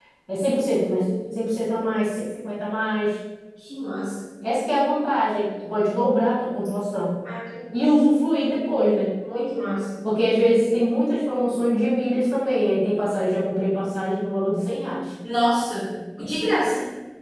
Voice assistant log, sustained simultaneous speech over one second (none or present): none